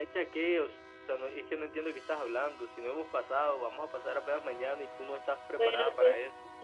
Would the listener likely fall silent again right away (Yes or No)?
No